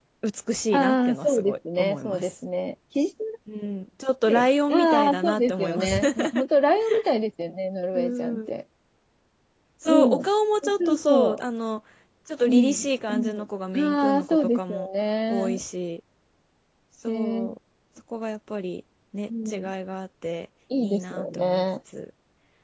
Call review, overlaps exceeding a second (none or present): present